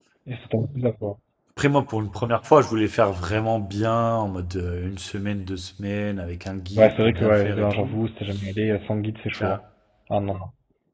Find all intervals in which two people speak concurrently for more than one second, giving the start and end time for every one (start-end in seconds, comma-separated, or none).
6.8-8.0